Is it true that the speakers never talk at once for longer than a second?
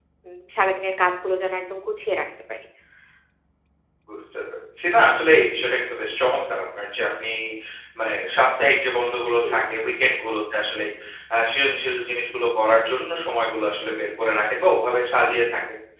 Yes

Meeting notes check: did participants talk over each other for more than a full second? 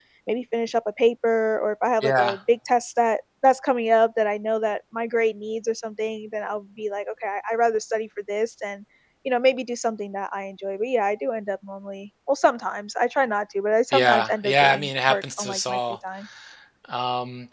Yes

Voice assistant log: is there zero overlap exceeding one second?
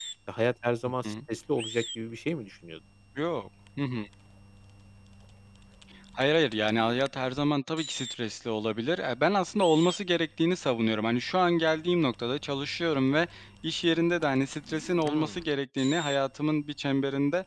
Yes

